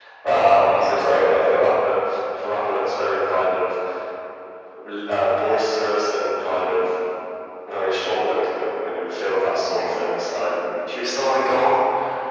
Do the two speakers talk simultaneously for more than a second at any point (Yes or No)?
Yes